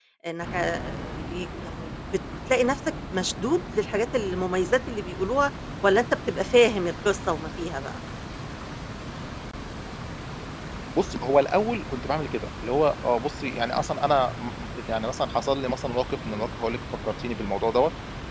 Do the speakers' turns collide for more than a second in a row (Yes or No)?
No